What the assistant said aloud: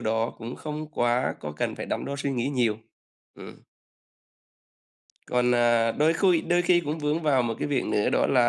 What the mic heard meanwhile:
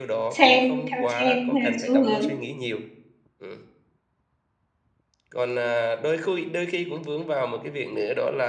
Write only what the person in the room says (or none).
xem theo trend hay là xu hướng.